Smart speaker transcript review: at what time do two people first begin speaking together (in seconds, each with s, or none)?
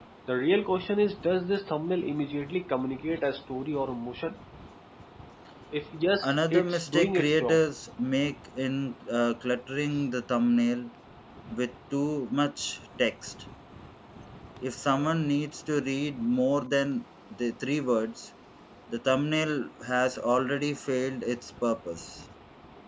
6.2 s